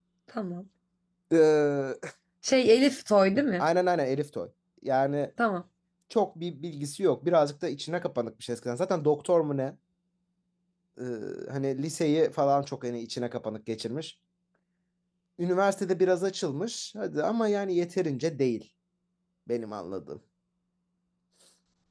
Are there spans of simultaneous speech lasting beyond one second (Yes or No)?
No